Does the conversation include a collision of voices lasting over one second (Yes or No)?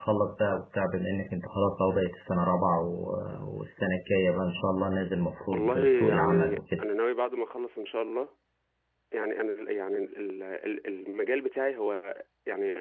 Yes